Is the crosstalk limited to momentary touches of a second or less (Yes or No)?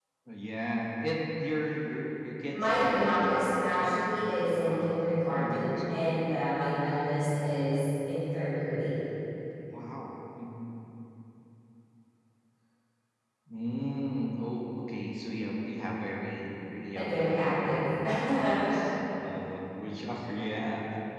No